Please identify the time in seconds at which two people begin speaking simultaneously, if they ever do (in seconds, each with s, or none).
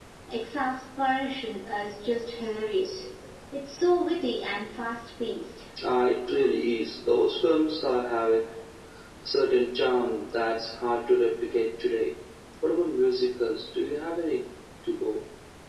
none